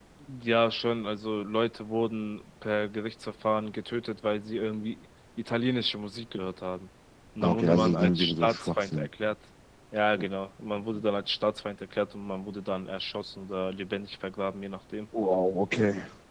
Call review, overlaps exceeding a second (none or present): present